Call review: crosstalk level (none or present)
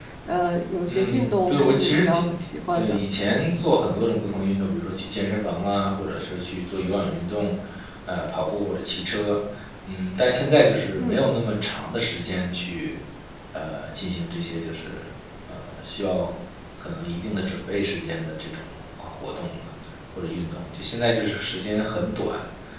present